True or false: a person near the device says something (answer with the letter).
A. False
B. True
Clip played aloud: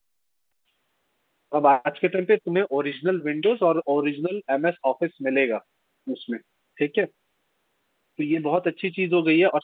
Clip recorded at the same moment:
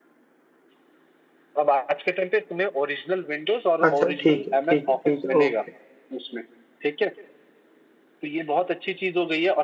B